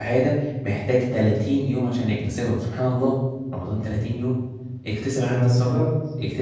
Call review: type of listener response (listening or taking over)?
listening